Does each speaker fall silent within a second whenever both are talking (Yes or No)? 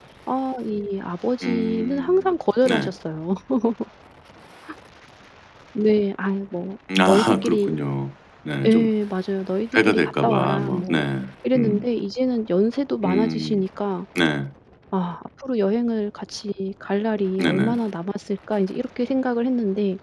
No